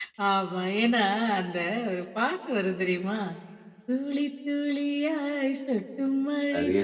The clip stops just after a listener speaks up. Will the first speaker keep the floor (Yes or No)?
Yes